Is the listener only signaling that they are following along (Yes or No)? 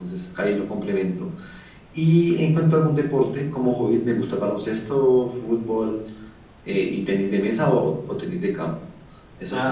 Yes